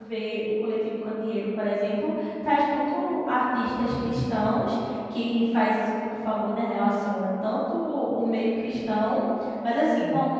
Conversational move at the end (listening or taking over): listening